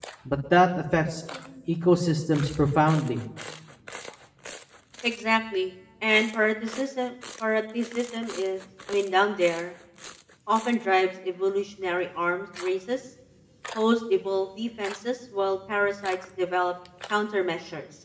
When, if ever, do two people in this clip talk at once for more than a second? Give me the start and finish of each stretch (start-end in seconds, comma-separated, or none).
none